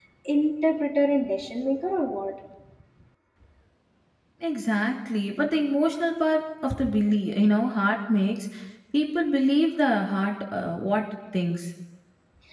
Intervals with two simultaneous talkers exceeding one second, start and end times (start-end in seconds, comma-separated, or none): none